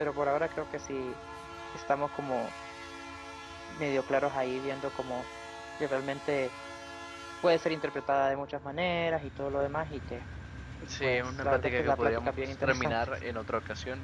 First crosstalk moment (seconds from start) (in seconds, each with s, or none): 11.0 s